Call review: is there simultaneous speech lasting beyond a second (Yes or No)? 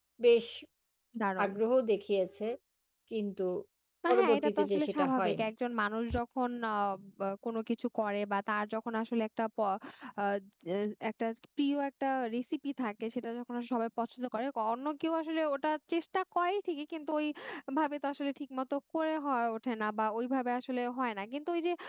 Yes